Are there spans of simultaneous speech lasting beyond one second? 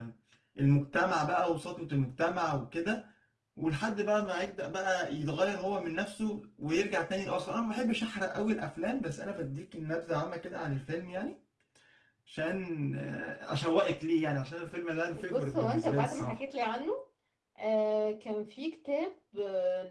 Yes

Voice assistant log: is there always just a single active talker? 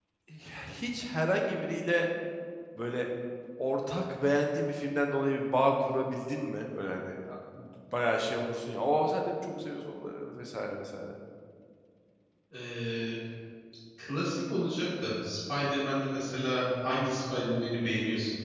Yes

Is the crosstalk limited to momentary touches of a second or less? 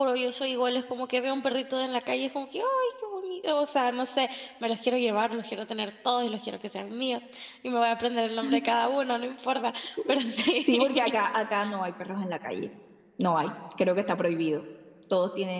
Yes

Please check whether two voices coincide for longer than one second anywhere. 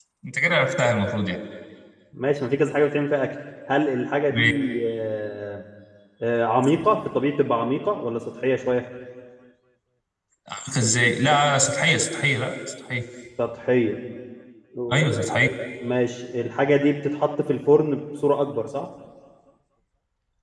No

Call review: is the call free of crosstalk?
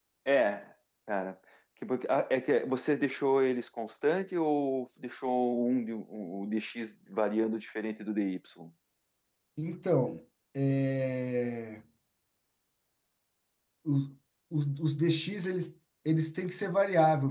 Yes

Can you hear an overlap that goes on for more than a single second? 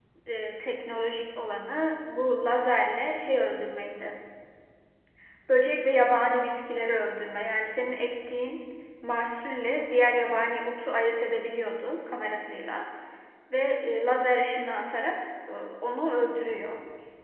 No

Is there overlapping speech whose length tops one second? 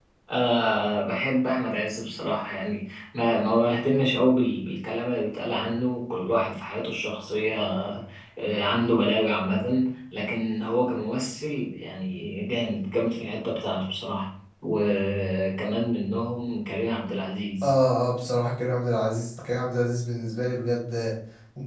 No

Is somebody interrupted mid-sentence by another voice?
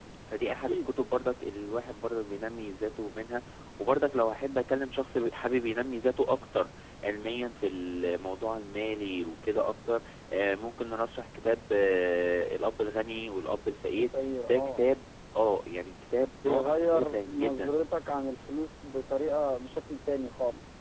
Yes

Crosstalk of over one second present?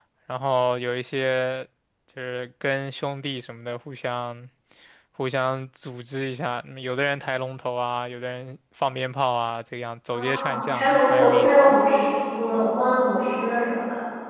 Yes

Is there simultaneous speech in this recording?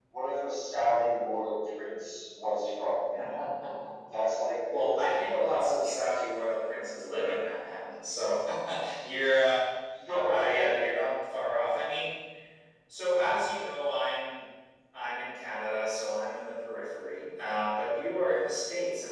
Yes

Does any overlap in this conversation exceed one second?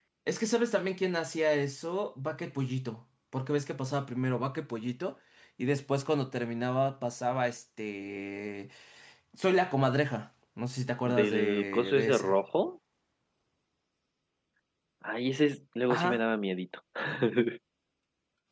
Yes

